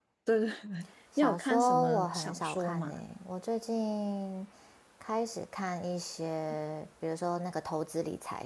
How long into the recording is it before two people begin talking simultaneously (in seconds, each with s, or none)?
1.2 s